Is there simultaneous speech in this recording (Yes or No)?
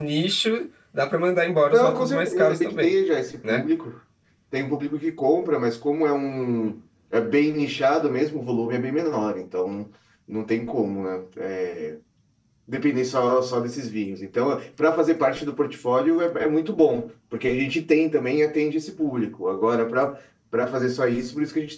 Yes